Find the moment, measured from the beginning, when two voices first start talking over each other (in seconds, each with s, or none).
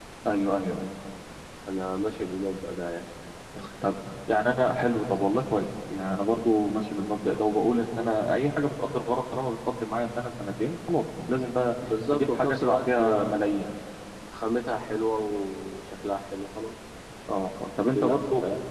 12.1 s